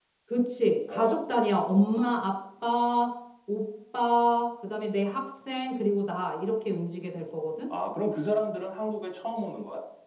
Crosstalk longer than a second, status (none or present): none